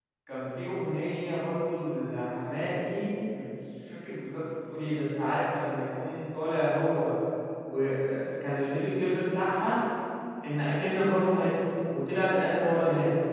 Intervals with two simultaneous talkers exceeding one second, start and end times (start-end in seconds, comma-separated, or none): none